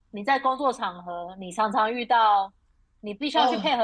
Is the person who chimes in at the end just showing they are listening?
Yes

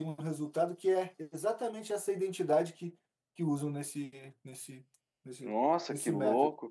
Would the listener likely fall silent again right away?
No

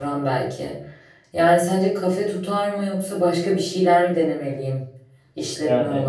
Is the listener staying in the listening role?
No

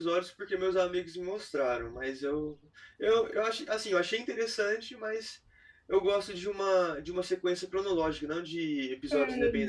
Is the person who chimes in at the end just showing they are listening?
No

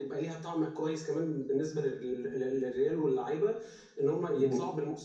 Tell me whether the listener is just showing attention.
Yes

